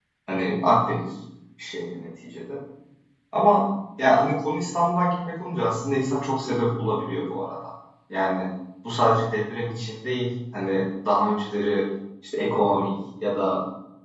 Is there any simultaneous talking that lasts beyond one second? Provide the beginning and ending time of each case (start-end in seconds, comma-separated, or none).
none